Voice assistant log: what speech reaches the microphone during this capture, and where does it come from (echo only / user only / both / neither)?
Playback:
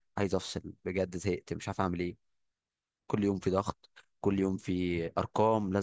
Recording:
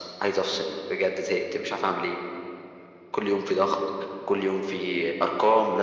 echo only